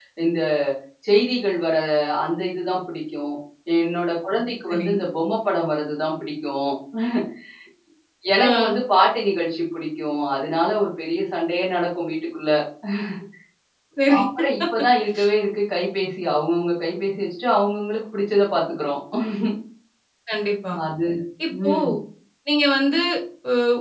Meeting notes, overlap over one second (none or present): none